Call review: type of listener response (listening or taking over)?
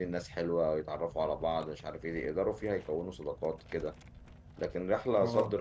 listening